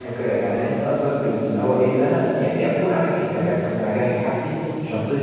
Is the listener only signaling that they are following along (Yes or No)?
Yes